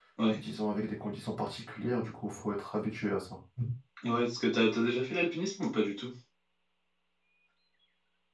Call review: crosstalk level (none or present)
none